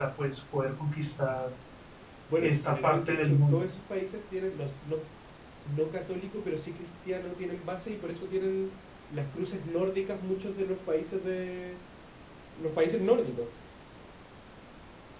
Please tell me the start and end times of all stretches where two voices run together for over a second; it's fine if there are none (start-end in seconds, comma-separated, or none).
2.4-3.7